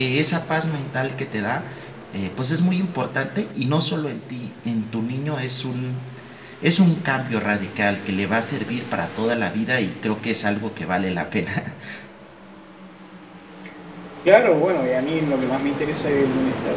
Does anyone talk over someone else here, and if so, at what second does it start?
none

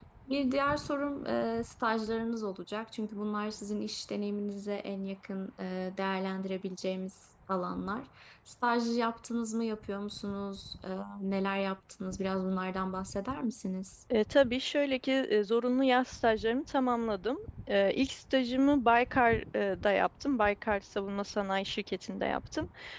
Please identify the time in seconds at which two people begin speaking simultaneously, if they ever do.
none

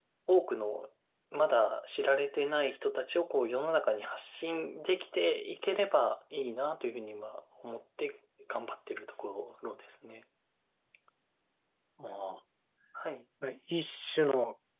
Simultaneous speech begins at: none

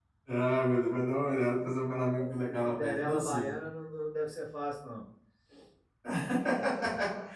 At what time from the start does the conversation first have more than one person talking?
2 s

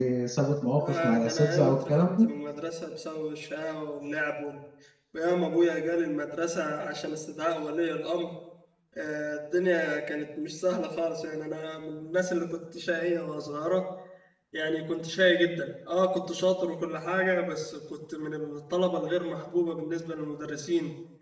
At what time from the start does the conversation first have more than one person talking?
1 s

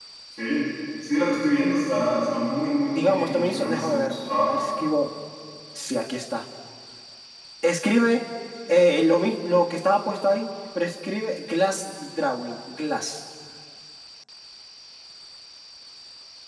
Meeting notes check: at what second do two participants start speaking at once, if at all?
3 s

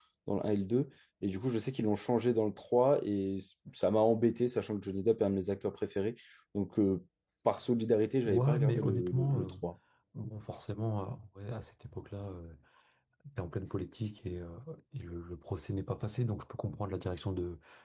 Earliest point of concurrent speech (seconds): 8 s

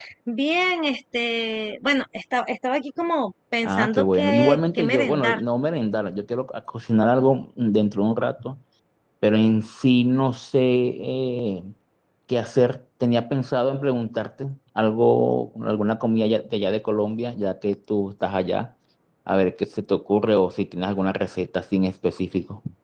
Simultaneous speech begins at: 4 s

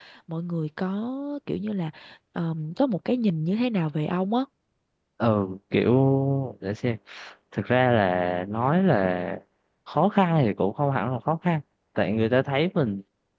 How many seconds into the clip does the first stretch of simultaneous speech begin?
none

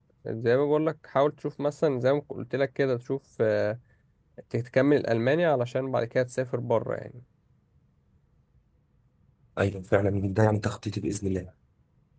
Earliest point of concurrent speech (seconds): none

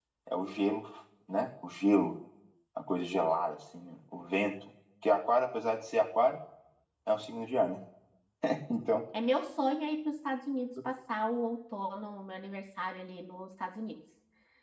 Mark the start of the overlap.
none

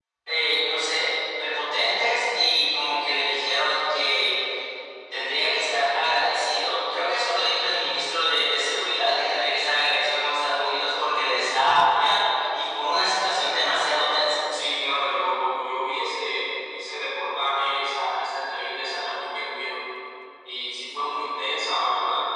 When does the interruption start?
none

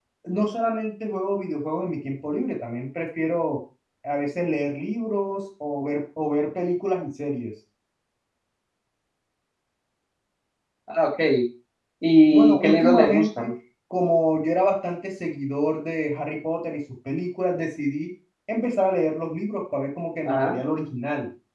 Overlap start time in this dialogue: 12 s

